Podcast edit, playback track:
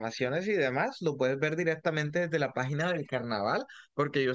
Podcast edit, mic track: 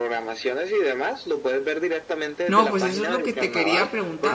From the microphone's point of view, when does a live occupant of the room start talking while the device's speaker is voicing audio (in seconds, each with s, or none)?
2.5 s